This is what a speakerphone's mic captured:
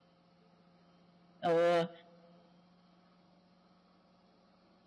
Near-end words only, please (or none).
Ừ.